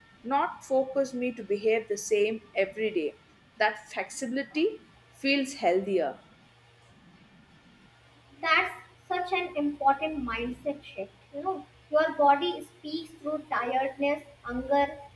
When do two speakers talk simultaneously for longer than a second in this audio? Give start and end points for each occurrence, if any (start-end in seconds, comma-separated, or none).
none